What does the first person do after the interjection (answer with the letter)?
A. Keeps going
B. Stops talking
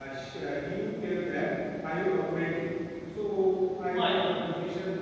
A